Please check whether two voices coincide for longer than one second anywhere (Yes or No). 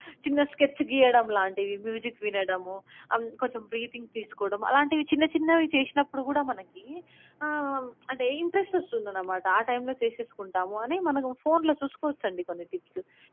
No